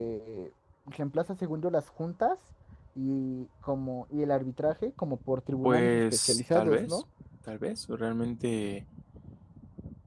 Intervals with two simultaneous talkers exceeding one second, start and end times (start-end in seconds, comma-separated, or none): 5.6-7.0